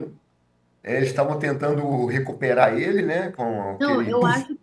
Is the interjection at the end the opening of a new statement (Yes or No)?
Yes